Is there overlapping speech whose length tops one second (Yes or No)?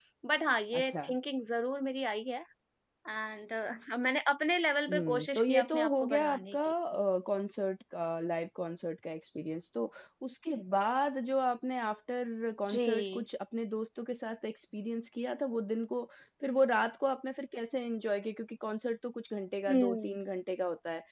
Yes